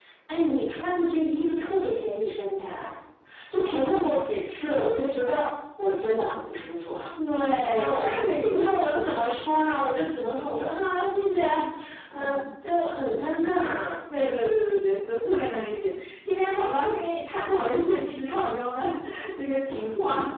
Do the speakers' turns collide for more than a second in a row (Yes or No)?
Yes